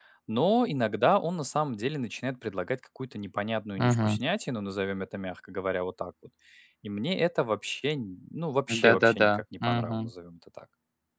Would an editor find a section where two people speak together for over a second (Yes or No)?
Yes